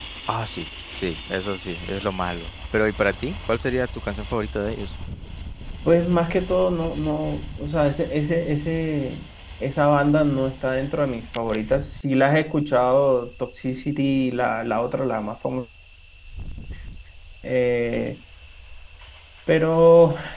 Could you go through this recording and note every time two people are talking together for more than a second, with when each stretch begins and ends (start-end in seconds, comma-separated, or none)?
none